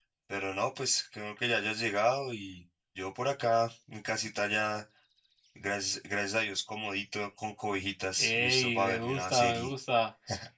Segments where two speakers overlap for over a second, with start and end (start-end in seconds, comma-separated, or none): 8.2-9.7